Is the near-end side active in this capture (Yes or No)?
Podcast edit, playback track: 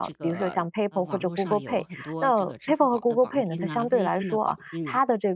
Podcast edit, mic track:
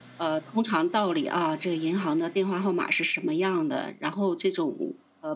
Yes